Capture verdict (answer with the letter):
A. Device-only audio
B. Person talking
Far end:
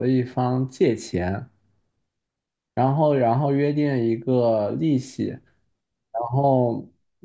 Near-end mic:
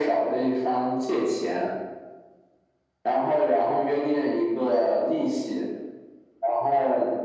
A